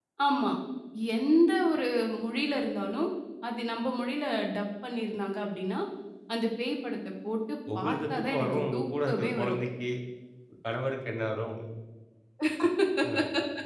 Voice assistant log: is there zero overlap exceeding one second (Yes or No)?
No